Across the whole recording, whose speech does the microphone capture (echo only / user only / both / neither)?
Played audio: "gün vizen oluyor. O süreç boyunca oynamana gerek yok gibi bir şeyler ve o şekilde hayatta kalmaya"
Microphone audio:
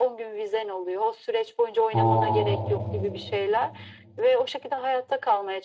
both